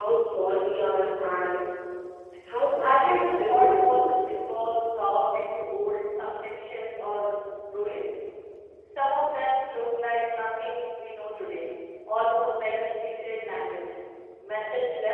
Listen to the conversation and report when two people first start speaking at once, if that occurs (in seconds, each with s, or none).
2.8 s